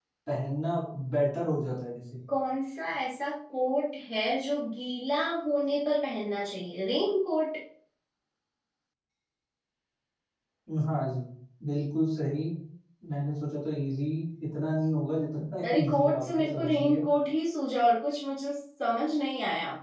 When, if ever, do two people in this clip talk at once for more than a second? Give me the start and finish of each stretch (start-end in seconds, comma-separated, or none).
15.6-17.0